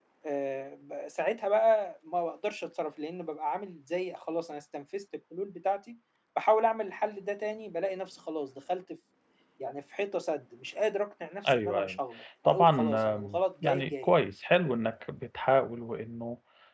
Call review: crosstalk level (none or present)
present